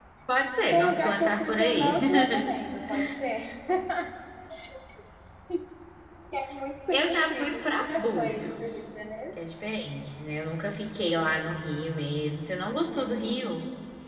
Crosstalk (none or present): present